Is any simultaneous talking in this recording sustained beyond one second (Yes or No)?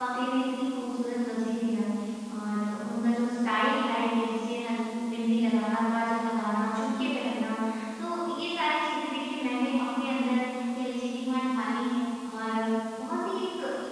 No